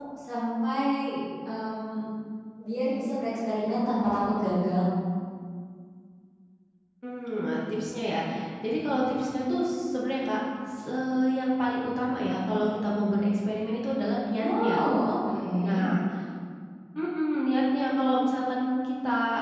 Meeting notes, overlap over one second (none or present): none